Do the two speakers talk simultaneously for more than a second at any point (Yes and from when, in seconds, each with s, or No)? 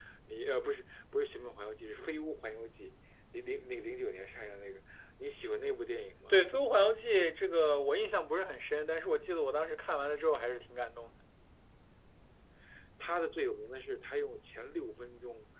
No